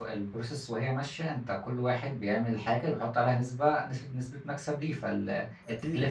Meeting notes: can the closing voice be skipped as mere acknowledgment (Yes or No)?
Yes